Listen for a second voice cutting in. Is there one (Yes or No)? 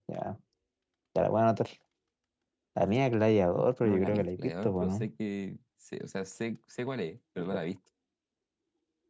Yes